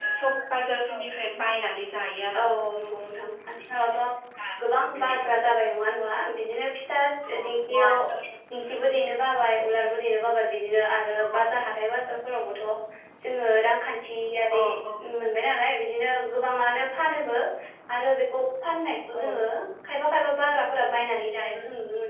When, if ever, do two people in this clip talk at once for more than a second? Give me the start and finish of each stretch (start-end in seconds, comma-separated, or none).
none